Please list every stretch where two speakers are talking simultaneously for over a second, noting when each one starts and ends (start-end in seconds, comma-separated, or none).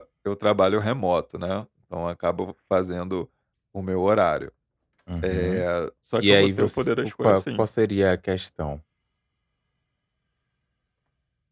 6.2-7.7